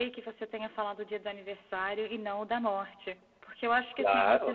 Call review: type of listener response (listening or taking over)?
listening